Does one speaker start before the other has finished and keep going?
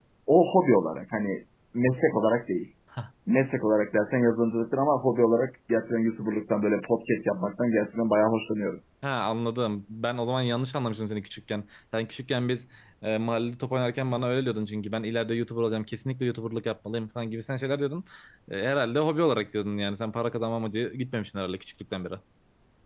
No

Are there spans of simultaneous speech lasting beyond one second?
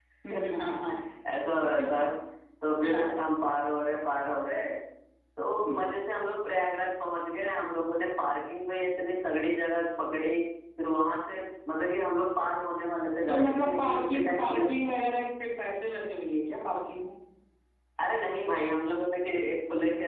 Yes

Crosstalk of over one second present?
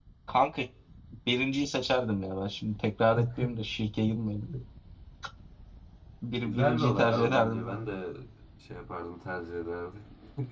Yes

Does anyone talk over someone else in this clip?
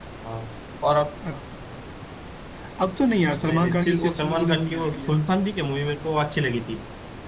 Yes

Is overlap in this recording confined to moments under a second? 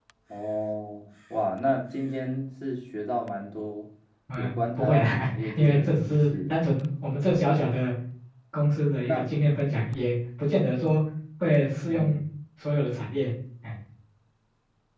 No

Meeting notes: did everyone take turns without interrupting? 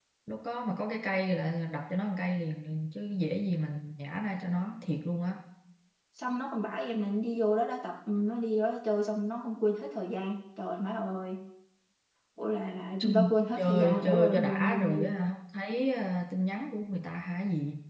No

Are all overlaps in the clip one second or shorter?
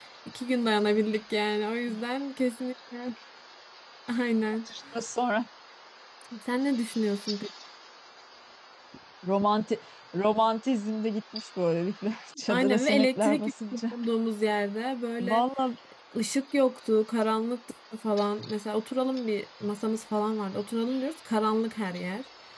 No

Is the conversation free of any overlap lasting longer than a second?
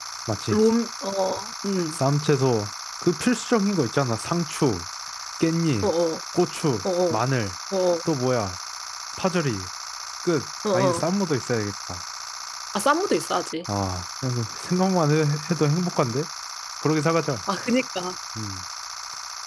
Yes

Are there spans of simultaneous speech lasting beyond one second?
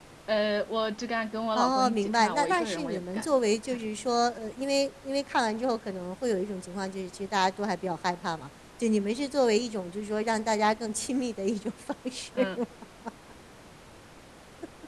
Yes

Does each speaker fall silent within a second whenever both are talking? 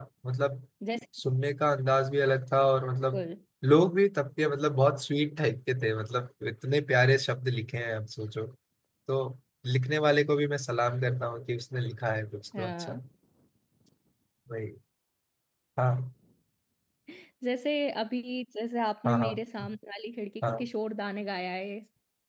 Yes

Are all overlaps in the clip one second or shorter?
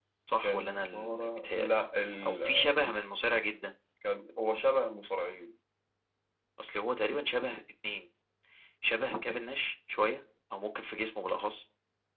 No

